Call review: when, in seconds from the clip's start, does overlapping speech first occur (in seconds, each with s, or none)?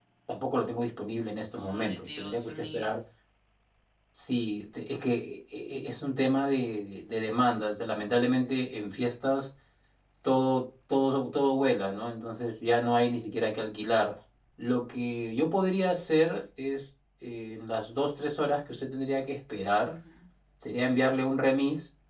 1.6 s